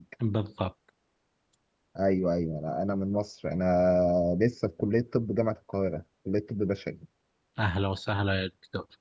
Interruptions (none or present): none